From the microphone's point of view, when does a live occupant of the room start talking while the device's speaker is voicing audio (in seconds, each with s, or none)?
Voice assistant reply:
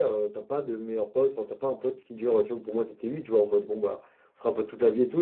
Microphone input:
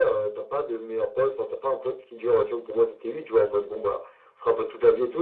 none